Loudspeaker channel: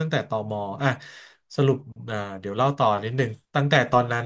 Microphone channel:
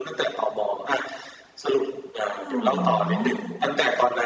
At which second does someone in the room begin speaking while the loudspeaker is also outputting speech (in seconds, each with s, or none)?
2.3 s